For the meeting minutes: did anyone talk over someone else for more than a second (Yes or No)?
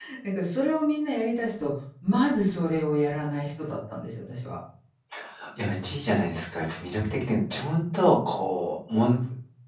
No